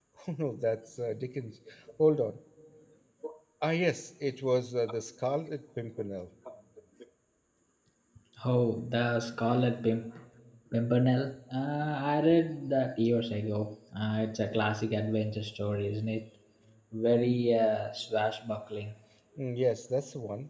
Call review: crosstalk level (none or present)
none